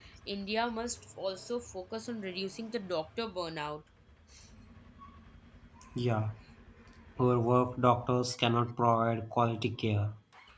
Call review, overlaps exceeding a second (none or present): none